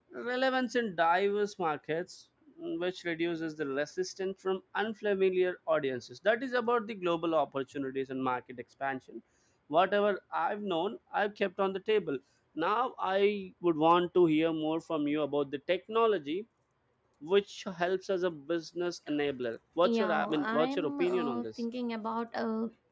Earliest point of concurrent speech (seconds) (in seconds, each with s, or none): 19.8 s